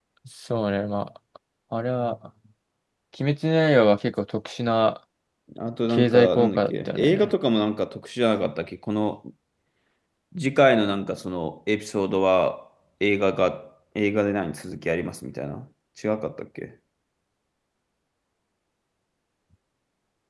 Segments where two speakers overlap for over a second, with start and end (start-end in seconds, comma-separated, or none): 5.9-7.3